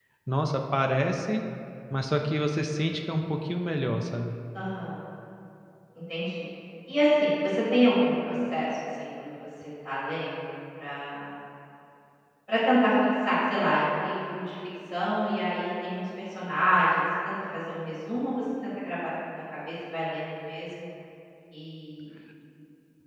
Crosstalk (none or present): none